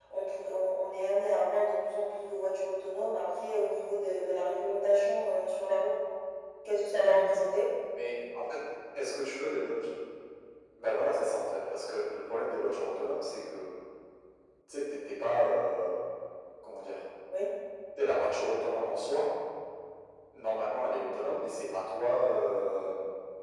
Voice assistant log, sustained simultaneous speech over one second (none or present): none